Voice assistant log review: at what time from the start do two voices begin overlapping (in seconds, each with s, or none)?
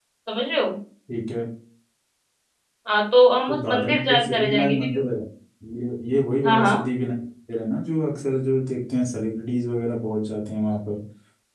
3.5 s